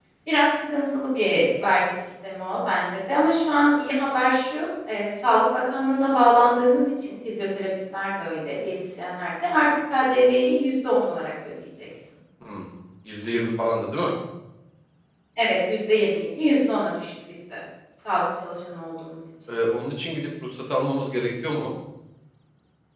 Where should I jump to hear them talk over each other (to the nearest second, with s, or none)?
none